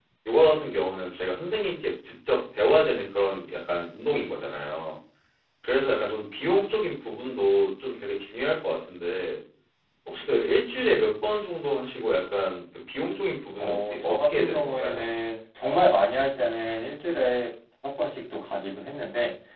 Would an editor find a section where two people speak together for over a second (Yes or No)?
Yes